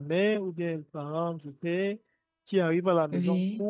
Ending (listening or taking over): listening